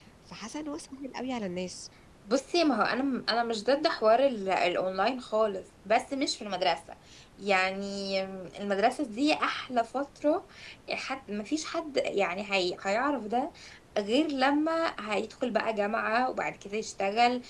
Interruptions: none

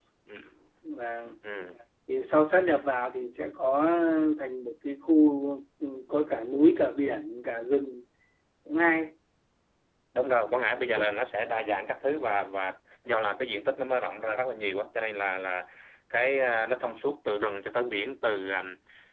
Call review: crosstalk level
none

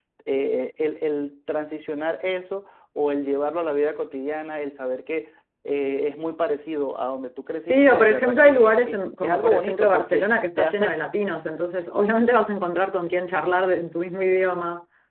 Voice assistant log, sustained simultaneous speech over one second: present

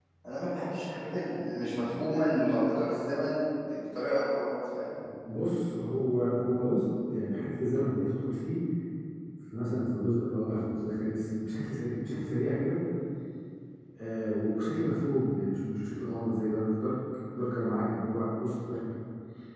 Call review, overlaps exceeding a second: none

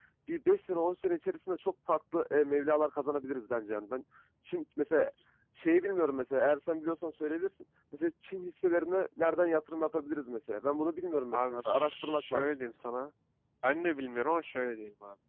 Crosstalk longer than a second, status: present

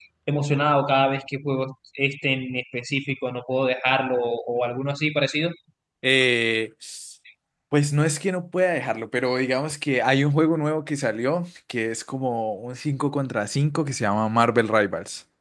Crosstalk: none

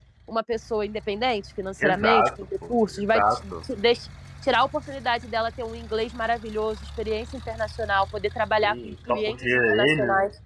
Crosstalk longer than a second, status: present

